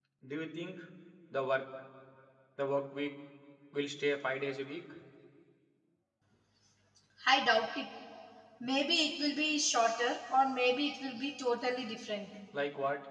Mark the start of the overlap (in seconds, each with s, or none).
none